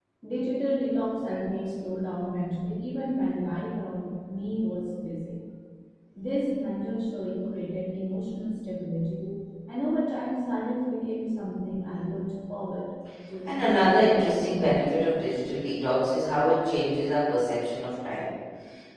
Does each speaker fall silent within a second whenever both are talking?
No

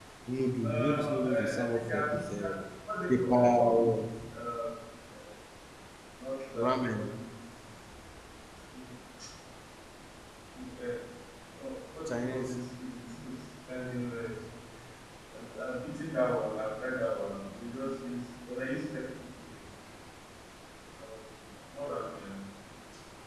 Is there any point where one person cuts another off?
Yes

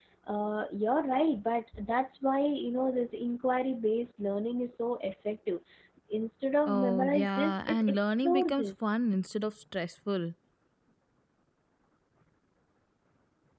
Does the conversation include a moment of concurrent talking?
Yes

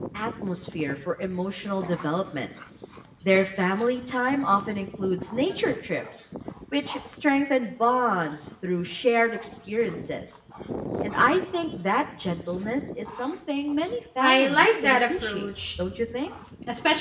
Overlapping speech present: Yes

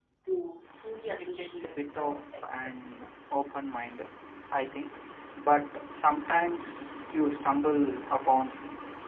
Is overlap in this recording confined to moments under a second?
No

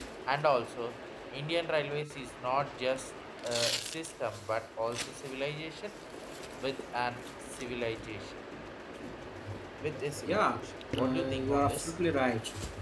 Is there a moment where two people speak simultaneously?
Yes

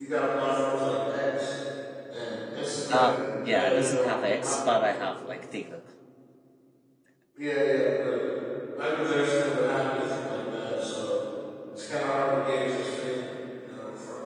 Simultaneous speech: Yes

